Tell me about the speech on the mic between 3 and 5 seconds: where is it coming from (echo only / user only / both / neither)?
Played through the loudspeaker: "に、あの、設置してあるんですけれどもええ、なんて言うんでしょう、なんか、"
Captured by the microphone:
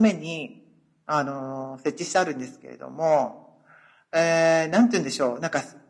echo only